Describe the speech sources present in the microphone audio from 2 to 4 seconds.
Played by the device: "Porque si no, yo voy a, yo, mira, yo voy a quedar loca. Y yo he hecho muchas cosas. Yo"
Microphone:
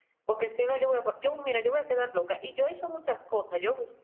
echo only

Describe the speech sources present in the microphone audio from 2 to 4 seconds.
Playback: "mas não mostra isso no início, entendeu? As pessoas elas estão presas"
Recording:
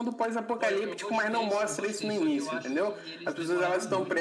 both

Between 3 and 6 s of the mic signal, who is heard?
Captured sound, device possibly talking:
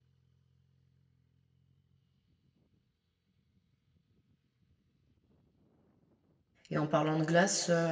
neither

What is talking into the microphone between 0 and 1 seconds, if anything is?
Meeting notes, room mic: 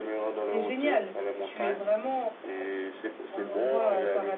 both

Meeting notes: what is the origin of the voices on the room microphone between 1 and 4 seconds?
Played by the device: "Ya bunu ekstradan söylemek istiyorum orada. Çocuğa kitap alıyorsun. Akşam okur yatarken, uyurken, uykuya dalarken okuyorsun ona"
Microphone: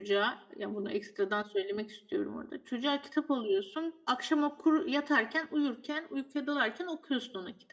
echo only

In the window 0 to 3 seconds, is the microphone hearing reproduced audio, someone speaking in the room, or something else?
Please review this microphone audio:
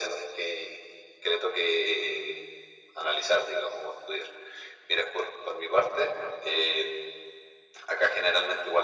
echo only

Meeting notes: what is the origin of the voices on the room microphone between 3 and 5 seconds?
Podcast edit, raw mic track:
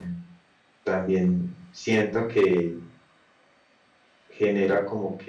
user only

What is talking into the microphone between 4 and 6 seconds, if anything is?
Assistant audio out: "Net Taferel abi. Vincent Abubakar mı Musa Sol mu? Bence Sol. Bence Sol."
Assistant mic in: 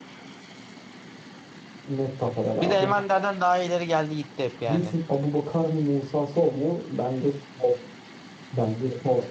both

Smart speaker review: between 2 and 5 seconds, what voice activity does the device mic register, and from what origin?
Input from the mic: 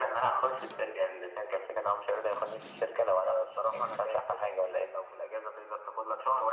echo only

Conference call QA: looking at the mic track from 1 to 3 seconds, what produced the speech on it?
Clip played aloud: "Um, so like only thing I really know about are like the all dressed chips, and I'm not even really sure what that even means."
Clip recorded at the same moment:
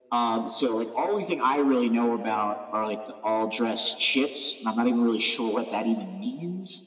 echo only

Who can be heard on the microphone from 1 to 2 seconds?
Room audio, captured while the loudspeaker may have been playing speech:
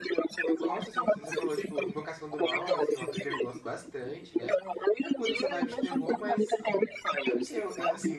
both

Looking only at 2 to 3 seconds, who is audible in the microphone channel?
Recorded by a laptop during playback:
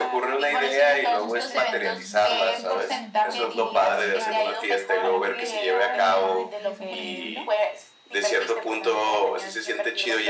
both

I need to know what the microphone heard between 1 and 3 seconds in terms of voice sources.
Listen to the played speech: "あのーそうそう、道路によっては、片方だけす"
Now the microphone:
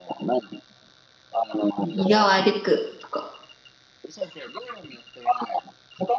both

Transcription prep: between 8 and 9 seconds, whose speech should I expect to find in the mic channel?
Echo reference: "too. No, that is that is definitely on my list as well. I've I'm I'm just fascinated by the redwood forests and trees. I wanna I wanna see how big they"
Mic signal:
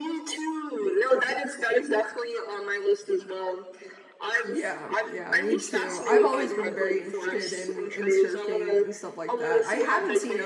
both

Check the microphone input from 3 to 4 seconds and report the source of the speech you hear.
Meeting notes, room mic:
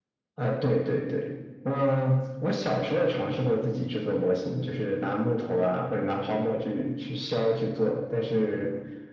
echo only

